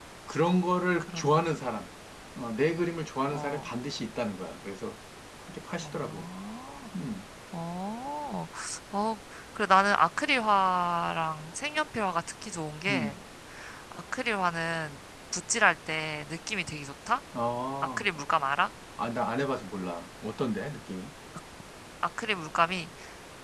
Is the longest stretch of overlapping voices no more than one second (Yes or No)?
Yes